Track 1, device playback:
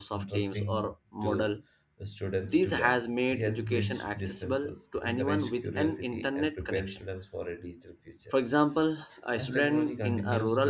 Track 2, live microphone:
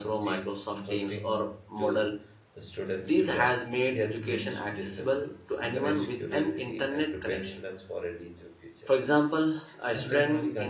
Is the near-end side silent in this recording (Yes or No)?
Yes